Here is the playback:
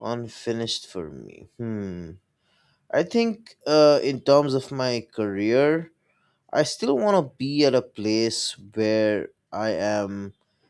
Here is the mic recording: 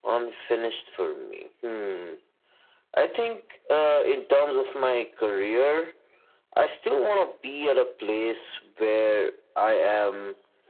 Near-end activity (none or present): none